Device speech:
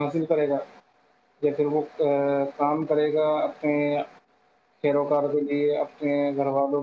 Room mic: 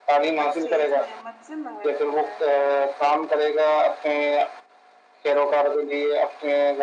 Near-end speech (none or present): present